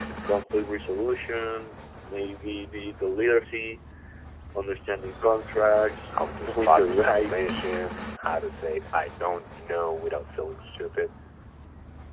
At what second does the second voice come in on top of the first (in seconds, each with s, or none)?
6.4 s